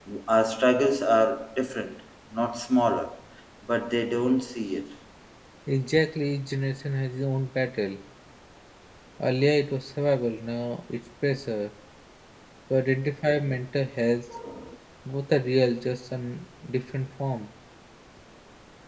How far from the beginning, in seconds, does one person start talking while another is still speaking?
none

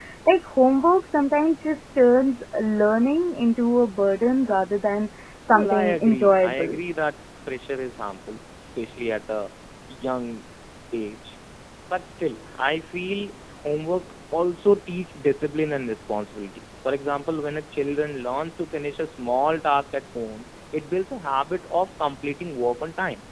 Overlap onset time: 5.5 s

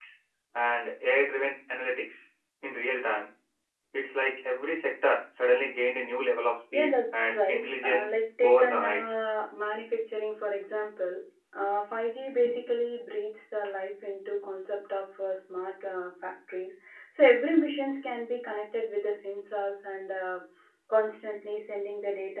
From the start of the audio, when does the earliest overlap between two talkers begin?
6.7 s

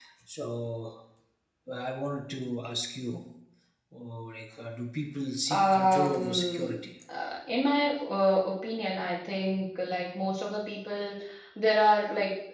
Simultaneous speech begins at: 5.5 s

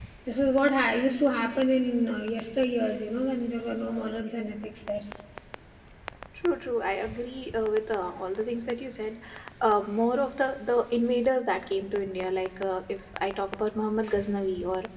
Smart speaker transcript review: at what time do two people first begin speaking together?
none

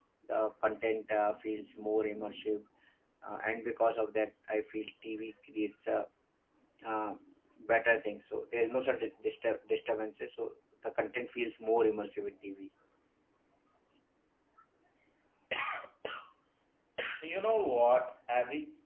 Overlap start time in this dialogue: none

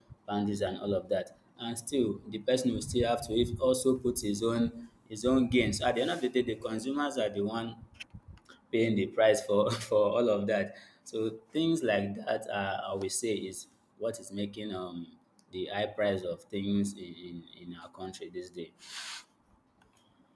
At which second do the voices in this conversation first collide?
none

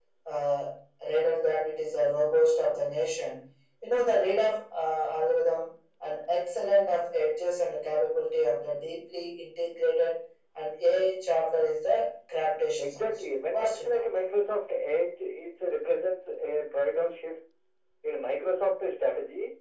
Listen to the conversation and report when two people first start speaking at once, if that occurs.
12.8 s

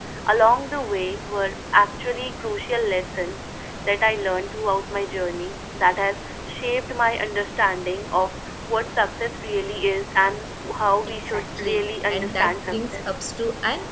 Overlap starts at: 11.1 s

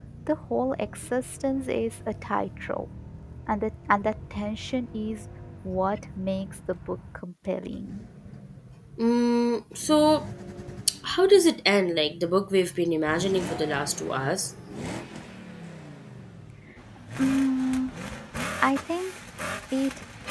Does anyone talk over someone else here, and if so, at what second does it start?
none

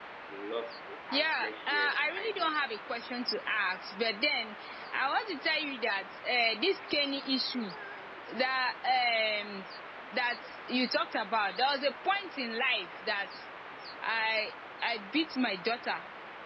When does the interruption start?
1.1 s

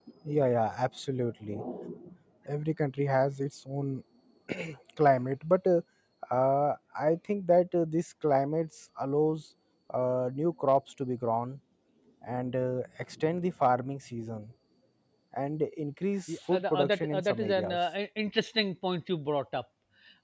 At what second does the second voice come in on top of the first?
16.3 s

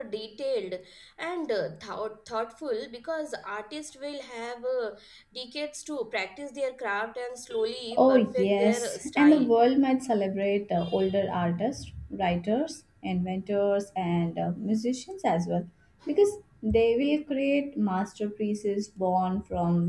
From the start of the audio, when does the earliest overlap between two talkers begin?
8.0 s

